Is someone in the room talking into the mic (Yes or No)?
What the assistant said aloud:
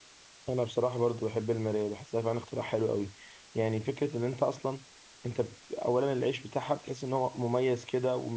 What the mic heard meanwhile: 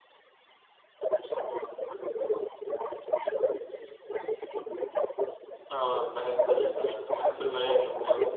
Yes